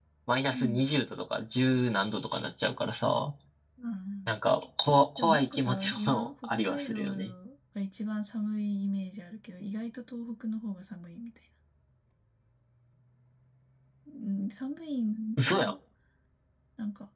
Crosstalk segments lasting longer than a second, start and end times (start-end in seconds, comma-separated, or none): 5.2-7.3